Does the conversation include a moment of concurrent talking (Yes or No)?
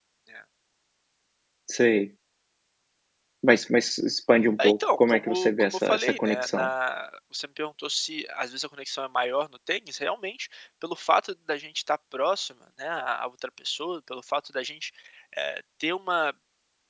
Yes